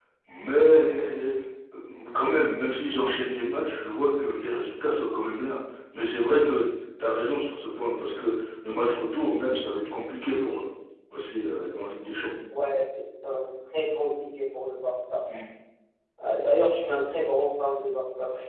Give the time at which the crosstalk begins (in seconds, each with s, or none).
none